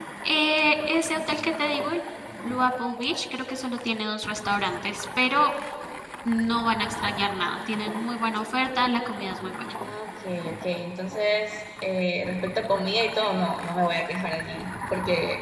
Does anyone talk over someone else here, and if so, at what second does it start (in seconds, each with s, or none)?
none